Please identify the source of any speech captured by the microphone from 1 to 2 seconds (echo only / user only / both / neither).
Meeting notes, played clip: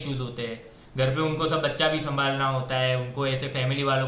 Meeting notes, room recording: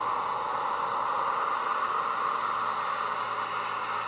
neither